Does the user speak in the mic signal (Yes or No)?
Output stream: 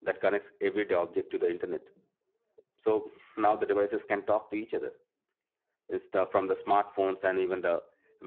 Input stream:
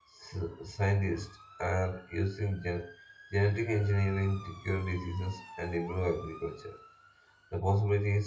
Yes